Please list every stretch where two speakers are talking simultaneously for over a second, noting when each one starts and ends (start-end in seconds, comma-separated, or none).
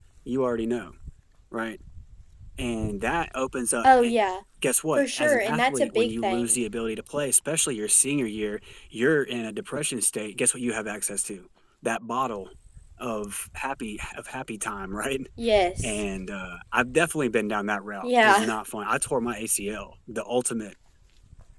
5.0-6.5